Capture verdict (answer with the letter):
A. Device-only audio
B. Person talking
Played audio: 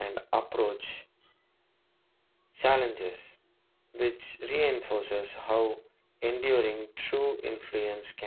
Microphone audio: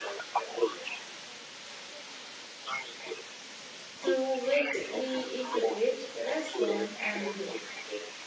B